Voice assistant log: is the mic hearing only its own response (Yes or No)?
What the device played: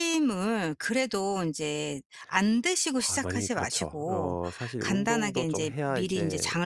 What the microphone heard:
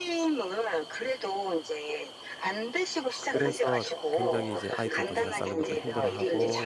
No